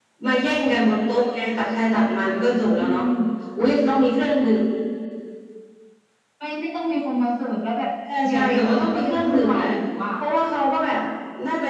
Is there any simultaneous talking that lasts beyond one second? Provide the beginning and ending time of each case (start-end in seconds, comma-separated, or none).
8.3-9.7